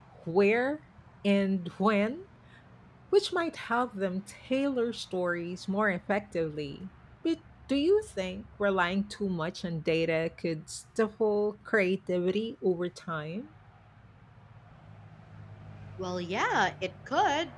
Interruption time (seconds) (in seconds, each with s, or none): none